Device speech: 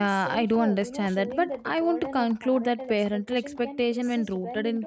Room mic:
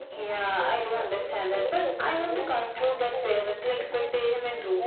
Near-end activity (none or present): none